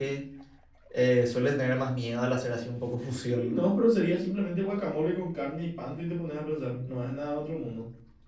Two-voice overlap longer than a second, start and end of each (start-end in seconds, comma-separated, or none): none